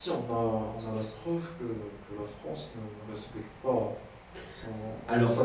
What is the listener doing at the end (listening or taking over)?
listening